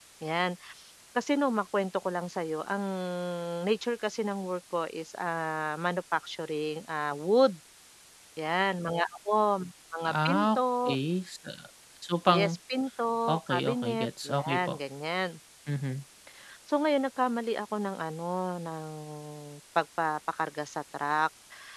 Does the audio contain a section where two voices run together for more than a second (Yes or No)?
Yes